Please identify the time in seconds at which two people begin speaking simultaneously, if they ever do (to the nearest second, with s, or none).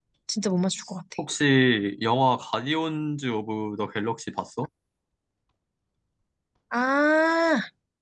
none